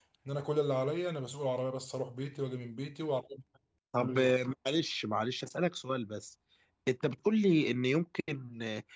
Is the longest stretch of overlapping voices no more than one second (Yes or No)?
Yes